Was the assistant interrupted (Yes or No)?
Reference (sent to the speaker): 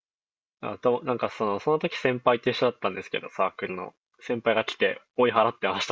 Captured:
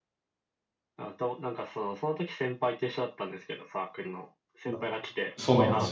Yes